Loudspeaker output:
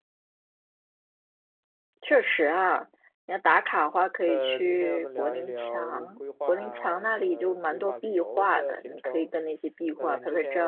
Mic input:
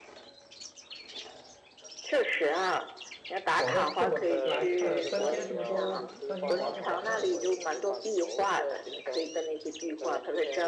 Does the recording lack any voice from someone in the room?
No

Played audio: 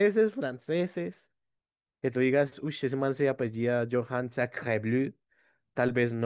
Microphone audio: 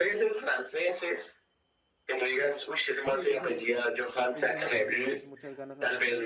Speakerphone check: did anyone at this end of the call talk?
Yes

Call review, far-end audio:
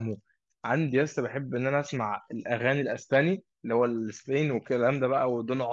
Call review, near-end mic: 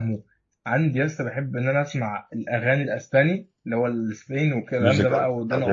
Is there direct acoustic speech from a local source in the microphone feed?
Yes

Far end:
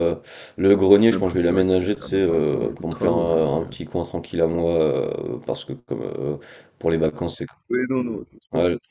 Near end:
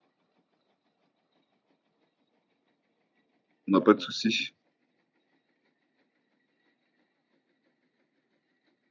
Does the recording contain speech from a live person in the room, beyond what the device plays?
Yes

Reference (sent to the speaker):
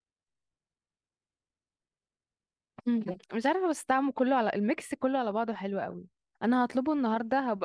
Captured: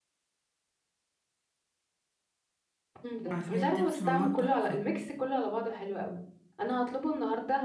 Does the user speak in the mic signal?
Yes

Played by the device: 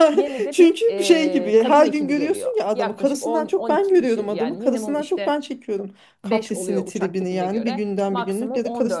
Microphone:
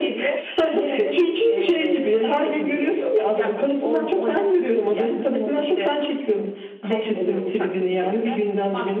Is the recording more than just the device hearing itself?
No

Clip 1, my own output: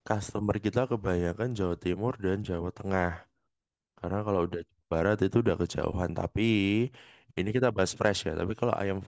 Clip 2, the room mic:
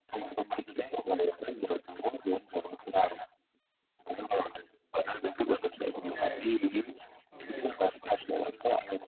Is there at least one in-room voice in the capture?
Yes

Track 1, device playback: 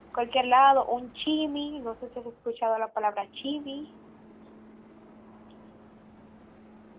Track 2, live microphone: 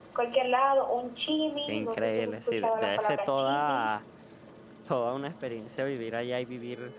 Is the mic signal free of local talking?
No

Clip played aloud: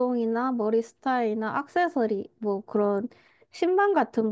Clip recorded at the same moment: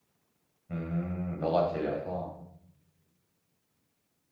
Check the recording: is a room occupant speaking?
Yes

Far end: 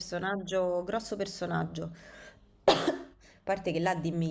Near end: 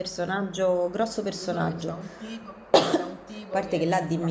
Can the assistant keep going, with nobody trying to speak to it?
No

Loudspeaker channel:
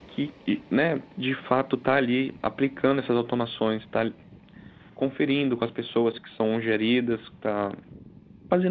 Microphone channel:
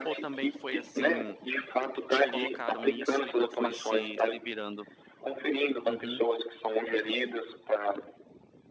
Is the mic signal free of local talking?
No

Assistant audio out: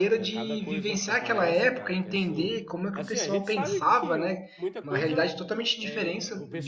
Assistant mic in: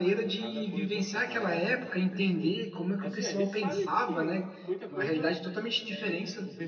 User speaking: No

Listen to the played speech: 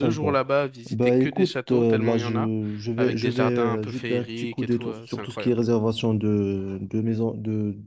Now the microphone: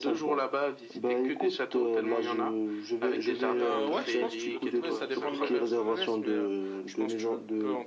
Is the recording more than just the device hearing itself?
Yes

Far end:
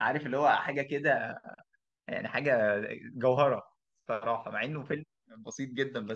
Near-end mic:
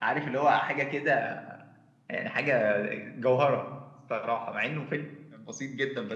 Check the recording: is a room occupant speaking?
No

